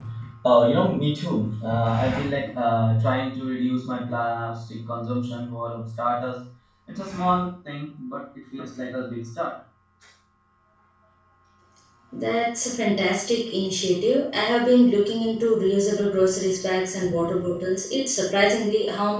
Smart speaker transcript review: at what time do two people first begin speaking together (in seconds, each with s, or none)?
none